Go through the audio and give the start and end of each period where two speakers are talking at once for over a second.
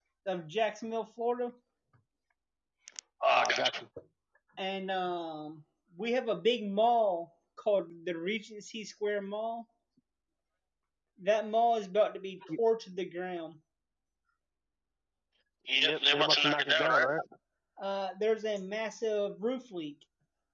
15.8-17.1

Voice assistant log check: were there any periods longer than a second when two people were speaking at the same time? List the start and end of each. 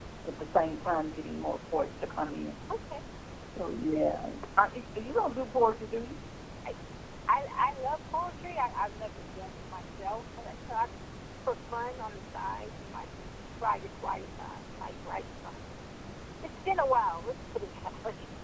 none

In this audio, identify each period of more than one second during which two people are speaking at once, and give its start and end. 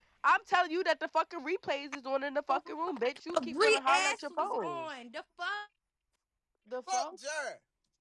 3.3-4.8

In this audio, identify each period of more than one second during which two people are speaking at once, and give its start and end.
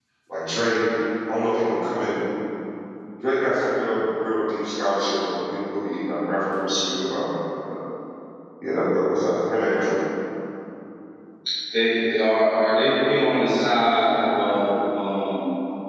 none

